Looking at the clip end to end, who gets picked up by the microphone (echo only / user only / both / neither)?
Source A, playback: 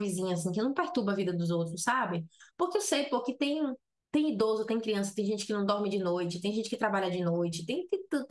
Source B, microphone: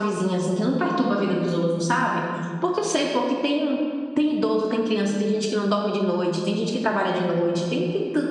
echo only